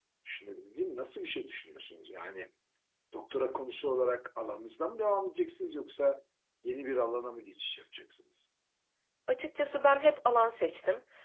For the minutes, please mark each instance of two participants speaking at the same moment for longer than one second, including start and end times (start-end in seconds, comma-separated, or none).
none